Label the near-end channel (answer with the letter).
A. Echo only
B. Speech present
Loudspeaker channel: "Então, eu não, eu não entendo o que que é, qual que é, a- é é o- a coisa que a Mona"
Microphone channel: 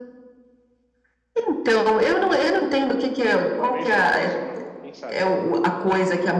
B